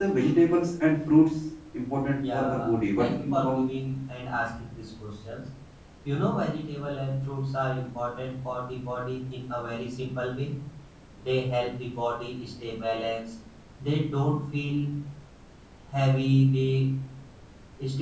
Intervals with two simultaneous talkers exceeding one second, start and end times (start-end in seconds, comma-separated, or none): 2.3-3.6